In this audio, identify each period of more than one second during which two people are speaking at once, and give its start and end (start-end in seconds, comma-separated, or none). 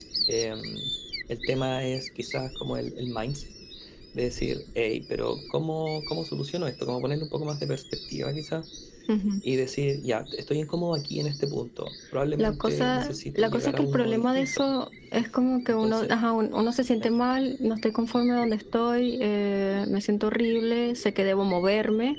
12.4-14.6